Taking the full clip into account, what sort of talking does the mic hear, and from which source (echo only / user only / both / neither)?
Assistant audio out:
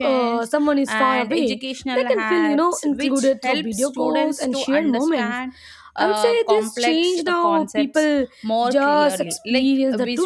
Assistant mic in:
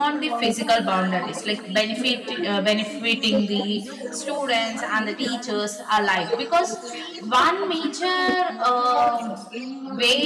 both